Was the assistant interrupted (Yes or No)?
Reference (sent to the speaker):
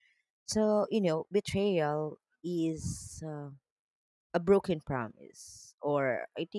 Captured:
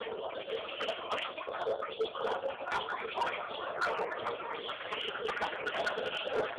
No